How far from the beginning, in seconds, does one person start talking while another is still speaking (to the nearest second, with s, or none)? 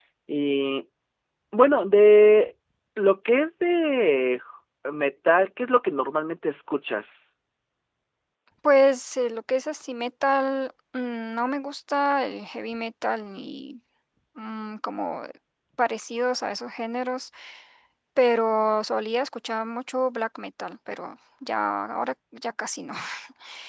none